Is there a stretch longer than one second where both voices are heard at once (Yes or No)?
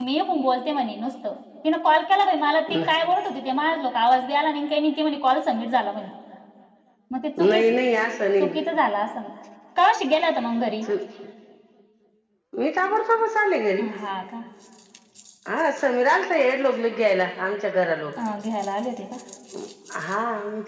No